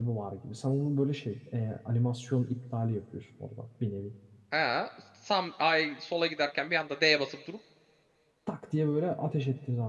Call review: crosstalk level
none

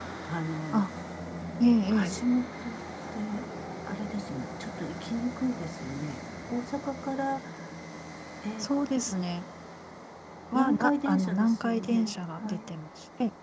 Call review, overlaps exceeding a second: present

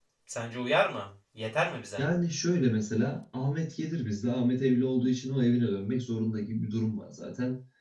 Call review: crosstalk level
none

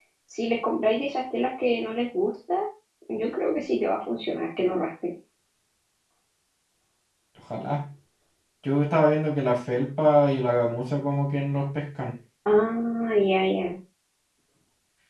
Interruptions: none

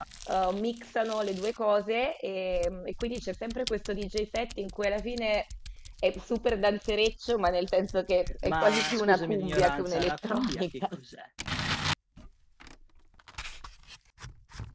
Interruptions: present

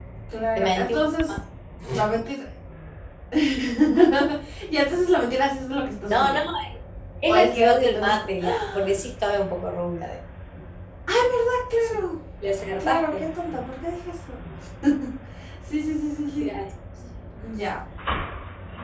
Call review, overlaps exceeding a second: present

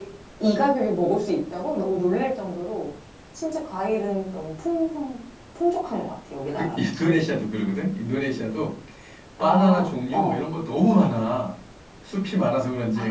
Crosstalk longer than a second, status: none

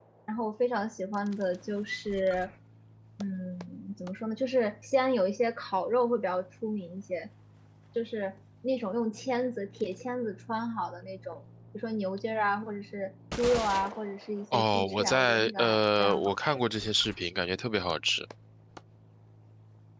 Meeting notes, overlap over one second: present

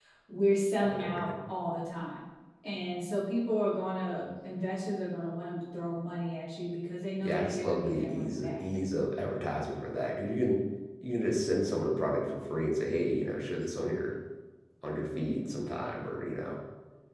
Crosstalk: present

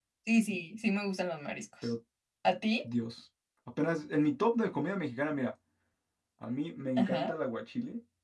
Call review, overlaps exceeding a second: none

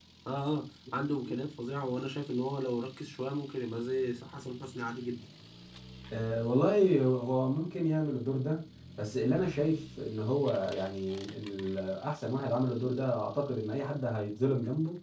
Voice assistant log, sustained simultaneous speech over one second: none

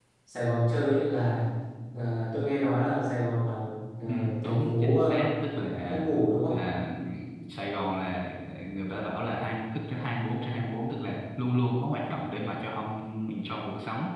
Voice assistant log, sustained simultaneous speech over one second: present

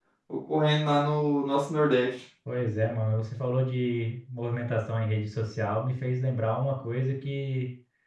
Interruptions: none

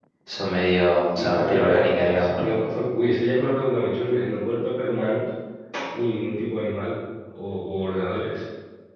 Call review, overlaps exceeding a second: present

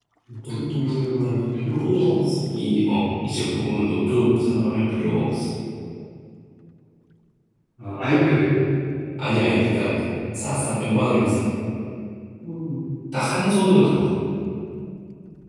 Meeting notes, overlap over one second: present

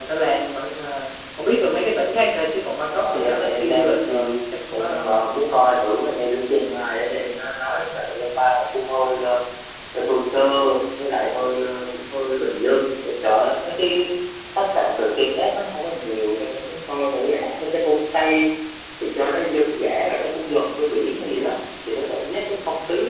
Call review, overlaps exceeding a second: present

